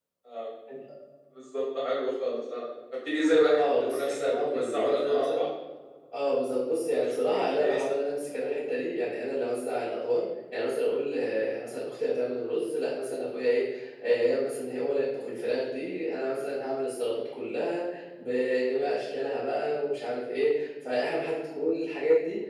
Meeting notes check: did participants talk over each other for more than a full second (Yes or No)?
Yes